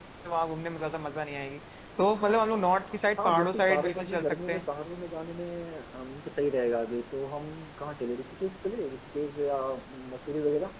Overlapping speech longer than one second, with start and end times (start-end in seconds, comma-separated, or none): 2.8-4.6